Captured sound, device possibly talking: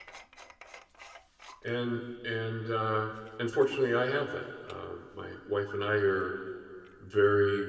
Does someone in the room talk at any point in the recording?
Yes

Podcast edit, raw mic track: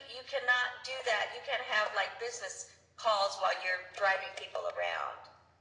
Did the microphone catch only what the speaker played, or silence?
Yes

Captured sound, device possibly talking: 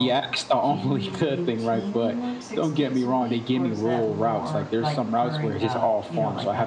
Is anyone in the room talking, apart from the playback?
Yes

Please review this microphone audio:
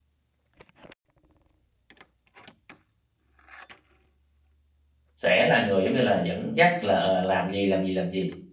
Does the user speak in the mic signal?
Yes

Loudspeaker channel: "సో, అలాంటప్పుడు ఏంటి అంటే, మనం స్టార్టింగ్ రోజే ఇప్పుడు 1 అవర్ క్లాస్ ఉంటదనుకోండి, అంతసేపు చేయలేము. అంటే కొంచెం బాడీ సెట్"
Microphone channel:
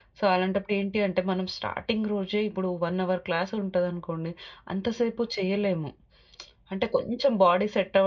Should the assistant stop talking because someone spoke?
No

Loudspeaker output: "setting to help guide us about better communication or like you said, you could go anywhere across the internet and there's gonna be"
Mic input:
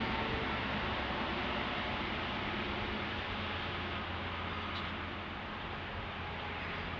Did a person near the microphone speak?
No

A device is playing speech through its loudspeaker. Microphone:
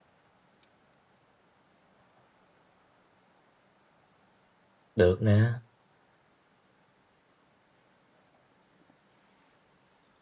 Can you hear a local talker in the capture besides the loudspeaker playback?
Yes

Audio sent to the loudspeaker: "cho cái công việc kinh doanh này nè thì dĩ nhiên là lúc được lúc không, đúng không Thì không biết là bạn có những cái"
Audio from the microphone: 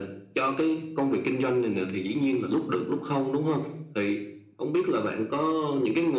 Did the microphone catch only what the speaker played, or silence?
Yes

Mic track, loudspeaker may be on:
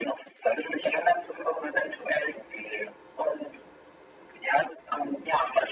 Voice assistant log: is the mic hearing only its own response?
Yes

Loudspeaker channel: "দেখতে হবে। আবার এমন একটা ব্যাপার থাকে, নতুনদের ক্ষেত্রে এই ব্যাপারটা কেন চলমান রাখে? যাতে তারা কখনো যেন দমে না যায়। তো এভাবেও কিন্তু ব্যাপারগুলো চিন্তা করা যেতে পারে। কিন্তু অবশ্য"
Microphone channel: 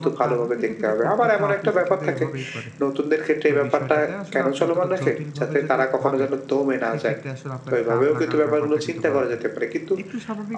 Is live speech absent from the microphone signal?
No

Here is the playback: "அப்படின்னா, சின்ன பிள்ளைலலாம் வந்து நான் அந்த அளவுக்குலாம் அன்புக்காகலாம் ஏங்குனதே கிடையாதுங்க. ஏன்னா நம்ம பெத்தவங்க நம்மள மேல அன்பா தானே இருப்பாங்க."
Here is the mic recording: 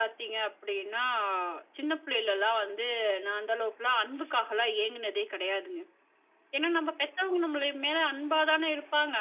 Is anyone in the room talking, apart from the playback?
No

